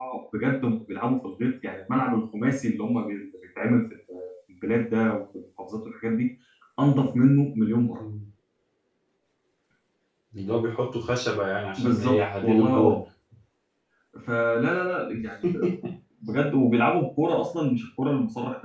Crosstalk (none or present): present